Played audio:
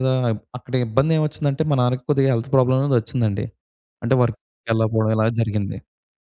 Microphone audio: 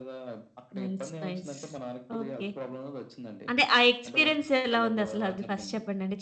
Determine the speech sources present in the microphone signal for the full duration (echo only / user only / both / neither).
both